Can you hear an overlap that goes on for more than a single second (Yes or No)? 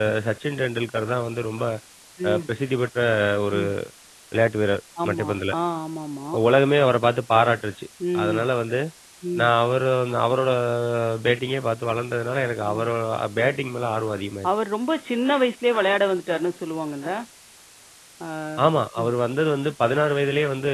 No